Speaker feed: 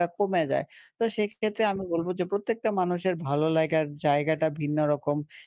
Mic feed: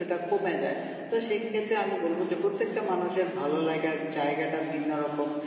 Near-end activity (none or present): none